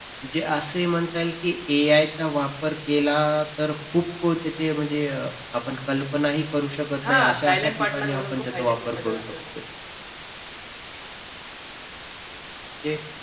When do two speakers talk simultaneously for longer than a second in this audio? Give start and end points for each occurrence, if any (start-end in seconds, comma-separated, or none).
7.1-9.2